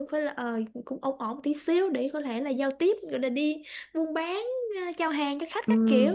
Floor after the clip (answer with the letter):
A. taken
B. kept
A